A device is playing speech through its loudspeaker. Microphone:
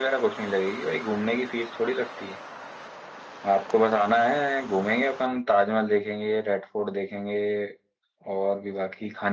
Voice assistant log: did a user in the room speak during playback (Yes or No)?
No